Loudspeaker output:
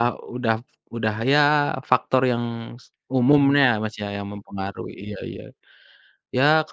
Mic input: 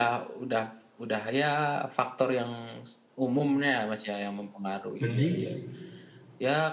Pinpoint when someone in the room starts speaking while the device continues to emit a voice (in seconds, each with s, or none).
5.0 s